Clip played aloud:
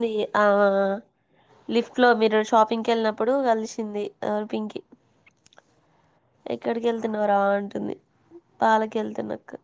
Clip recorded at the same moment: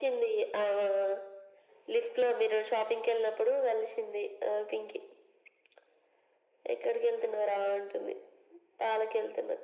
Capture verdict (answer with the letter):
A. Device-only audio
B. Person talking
A